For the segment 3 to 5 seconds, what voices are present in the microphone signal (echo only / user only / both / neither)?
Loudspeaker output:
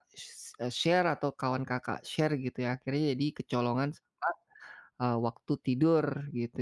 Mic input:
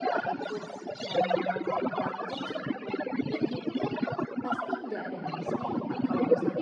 both